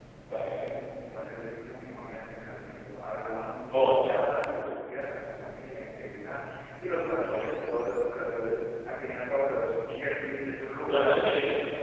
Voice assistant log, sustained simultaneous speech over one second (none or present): none